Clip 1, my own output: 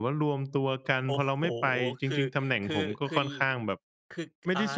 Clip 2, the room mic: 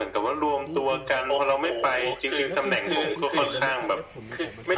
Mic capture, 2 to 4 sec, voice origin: both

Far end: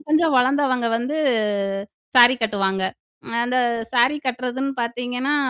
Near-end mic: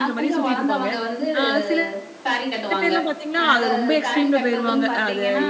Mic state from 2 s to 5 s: both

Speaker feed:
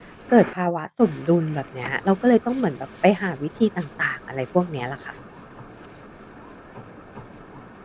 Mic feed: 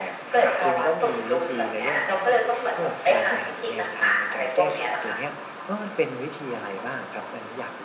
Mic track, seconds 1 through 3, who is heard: both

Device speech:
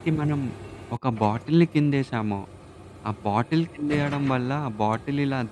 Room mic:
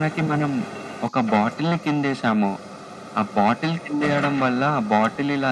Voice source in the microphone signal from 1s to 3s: echo only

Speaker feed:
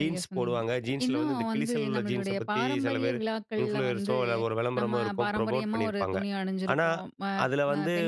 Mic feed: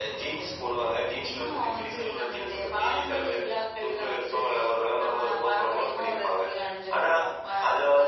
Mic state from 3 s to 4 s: echo only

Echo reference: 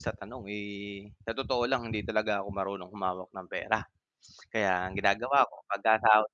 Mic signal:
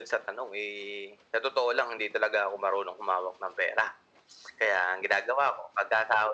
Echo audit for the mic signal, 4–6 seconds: echo only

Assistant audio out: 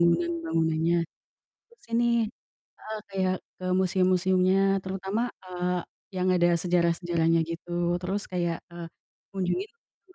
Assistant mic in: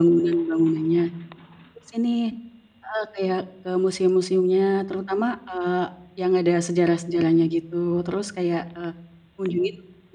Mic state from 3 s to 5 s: echo only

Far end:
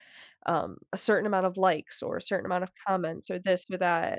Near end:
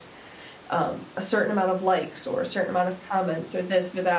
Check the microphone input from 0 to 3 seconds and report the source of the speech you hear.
echo only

